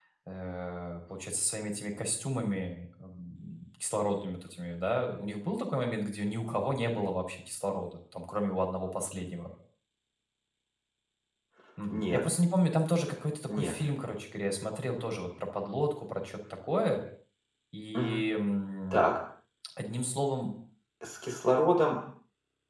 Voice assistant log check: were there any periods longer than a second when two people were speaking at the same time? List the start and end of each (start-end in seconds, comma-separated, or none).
none